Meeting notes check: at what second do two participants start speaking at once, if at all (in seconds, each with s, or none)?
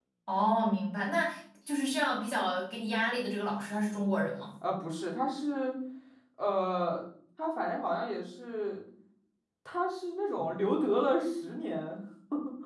none